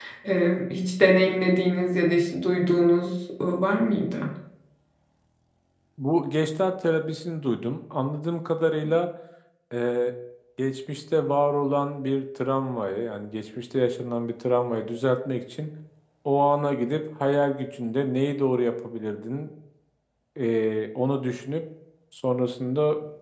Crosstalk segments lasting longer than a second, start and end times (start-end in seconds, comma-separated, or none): none